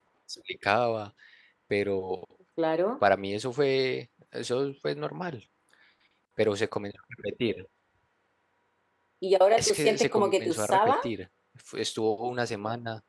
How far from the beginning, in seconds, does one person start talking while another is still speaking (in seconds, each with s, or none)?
9.6 s